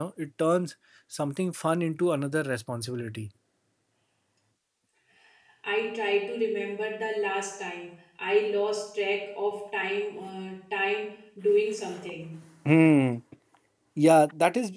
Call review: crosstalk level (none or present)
none